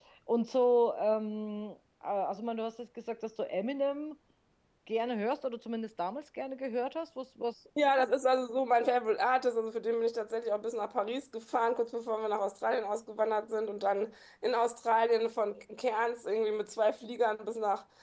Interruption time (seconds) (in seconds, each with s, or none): none